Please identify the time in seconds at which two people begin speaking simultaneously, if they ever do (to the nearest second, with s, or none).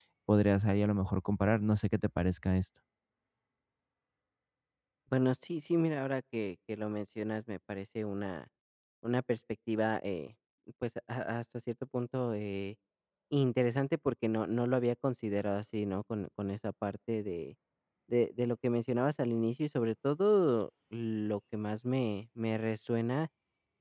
none